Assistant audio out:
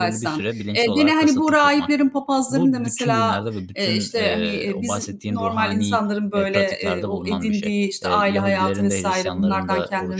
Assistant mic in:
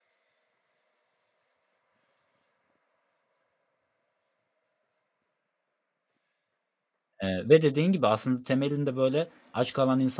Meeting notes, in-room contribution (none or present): present